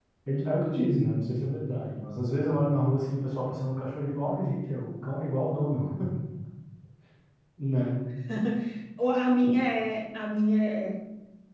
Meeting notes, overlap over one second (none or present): none